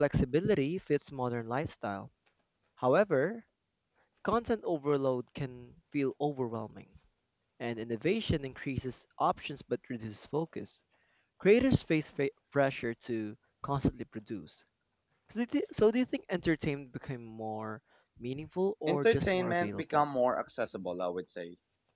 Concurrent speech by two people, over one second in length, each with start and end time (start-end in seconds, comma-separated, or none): 18.9-20.1